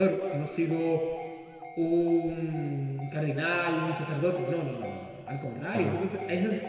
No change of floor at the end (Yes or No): Yes